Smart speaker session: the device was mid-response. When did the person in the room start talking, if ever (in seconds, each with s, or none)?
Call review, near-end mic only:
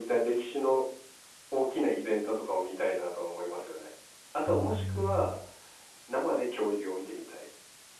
4.5 s